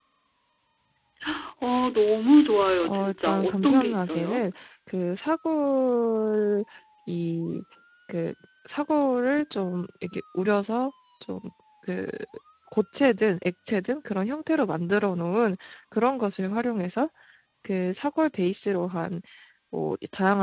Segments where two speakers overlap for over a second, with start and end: 2.8-4.4

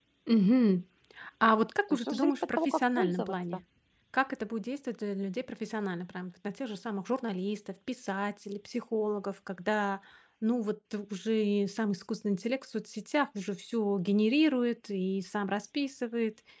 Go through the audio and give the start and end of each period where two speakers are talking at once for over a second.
1.9-3.6

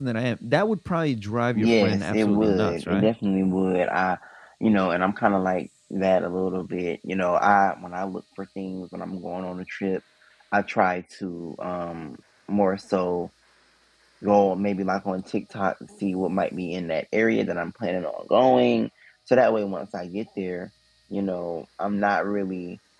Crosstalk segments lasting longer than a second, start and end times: 1.6-3.1

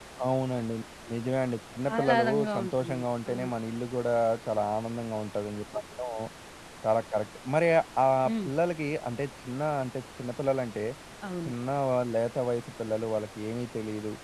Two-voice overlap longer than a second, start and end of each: 1.9-3.3

